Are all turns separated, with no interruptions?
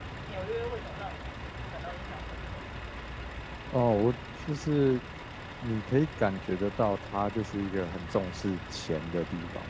Yes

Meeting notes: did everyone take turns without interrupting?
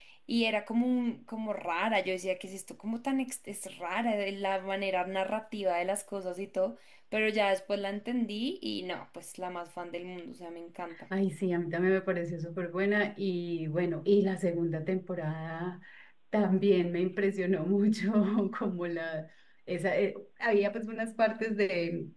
Yes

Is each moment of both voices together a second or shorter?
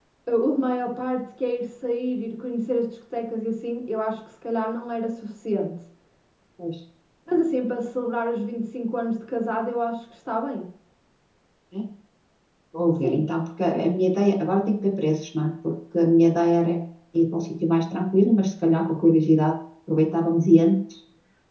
Yes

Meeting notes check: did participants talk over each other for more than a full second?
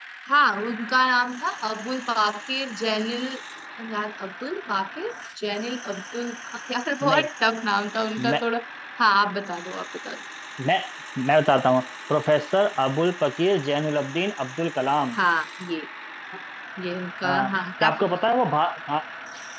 No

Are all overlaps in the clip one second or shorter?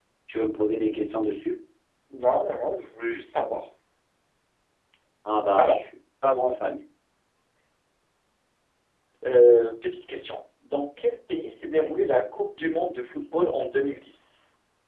Yes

